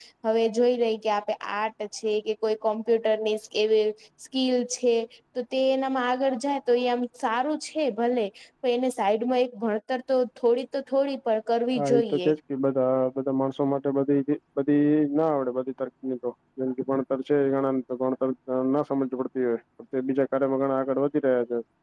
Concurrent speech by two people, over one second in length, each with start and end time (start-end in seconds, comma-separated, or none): none